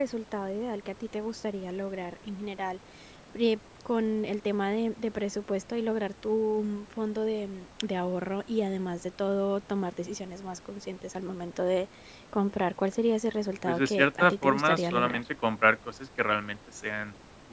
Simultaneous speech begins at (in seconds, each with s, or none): 13.7 s